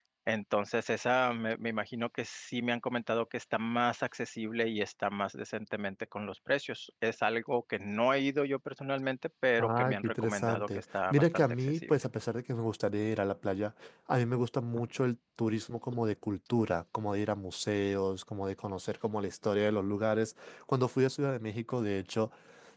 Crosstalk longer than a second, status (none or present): present